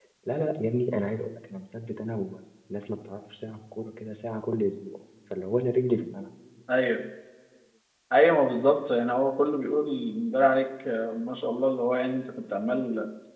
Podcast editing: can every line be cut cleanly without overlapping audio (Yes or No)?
Yes